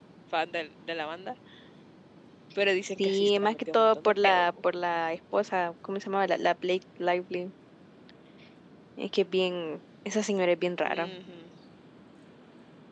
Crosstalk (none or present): present